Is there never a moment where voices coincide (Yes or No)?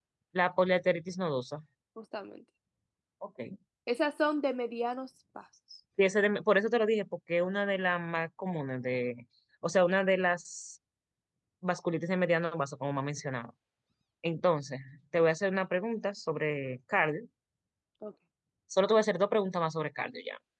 Yes